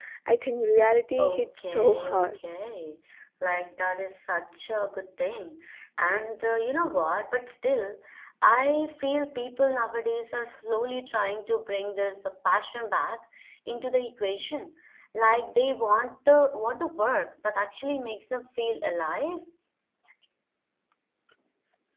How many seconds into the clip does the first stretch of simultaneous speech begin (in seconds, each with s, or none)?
1.2 s